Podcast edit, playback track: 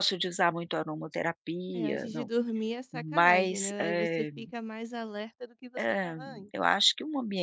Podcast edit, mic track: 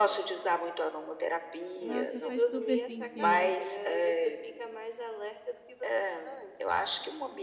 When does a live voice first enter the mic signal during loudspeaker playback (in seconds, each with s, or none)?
1.8 s